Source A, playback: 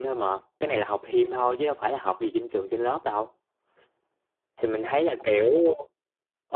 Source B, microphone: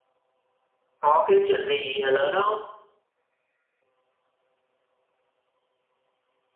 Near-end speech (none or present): present